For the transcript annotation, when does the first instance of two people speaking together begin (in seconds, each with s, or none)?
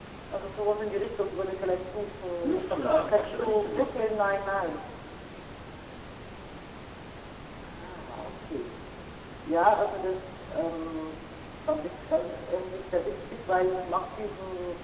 2.4 s